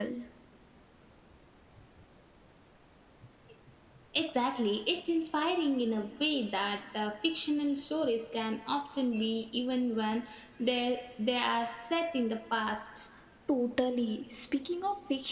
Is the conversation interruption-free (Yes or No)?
Yes